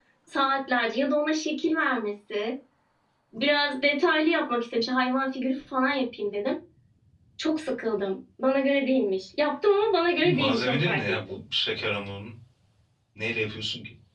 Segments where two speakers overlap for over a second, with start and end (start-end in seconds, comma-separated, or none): 10.2-11.4